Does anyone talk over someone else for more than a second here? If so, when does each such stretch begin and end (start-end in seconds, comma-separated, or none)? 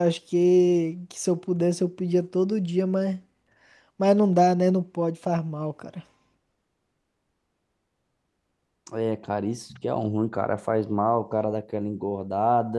none